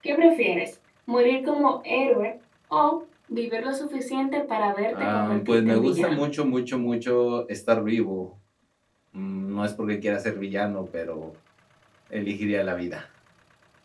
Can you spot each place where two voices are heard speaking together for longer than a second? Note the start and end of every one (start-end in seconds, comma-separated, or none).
4.9-6.2